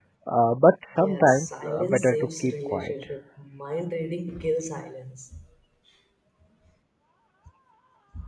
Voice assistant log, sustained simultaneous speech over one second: present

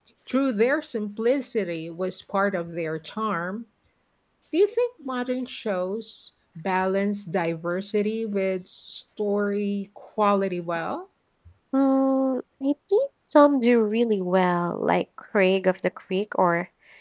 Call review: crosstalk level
none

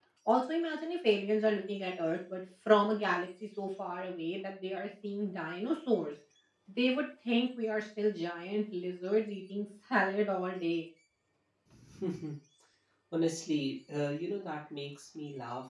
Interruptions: none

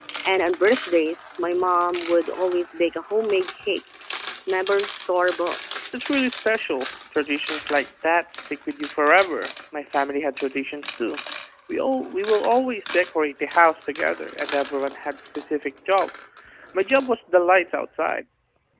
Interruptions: none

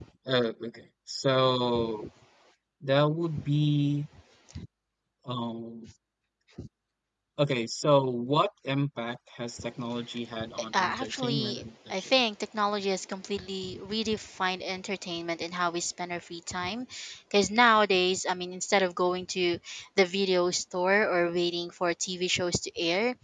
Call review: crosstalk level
present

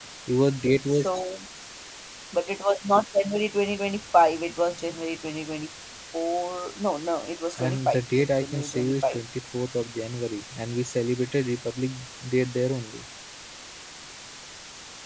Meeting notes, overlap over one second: present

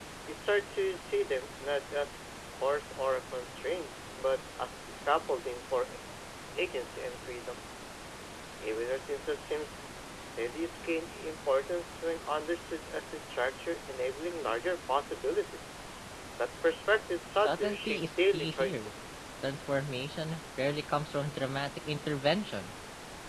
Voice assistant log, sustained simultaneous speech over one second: present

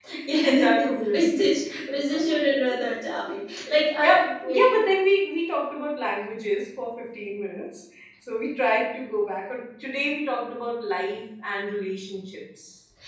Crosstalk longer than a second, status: present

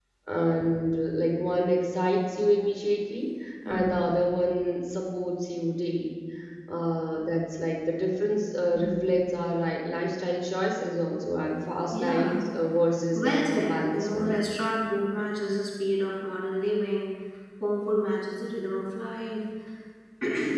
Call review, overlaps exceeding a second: present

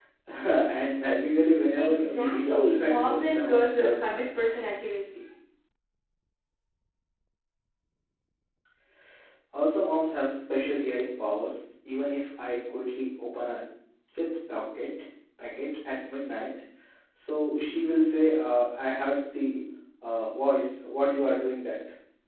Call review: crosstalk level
present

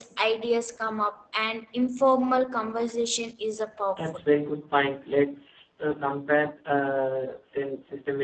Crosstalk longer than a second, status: none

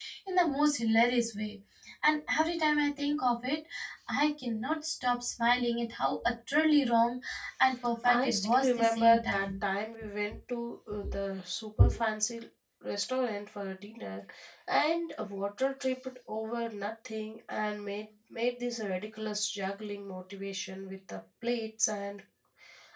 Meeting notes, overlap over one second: present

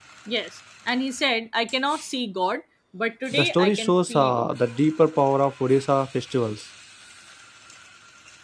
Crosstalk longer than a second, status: present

